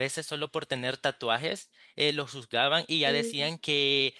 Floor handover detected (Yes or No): No